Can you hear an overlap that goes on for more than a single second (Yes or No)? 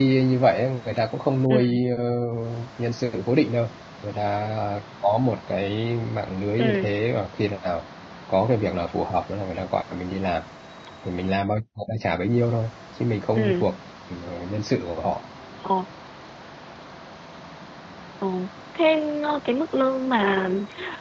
No